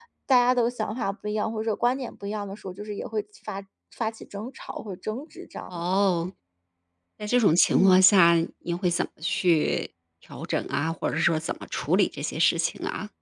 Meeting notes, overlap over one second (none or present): none